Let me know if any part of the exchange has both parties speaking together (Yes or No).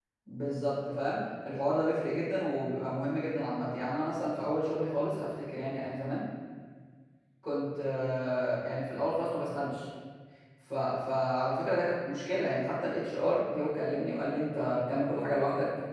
No